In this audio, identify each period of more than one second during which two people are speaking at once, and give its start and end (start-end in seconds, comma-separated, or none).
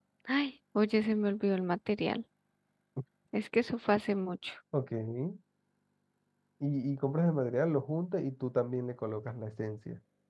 none